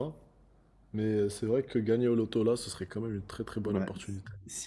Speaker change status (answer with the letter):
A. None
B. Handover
B